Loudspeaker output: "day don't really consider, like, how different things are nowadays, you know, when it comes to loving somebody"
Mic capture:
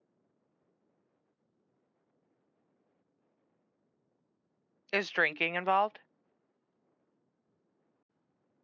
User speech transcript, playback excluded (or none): Is drinking involved?